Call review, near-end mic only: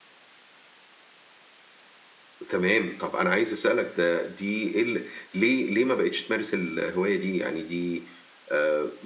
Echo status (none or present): none